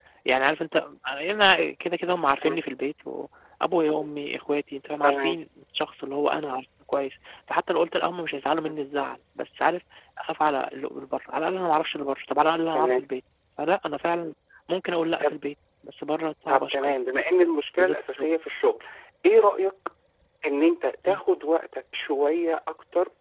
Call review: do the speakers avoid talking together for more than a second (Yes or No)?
Yes